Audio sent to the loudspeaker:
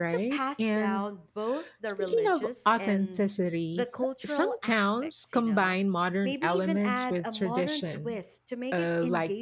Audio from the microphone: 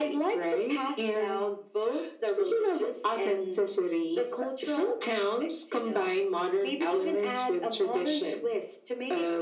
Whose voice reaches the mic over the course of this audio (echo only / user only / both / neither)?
echo only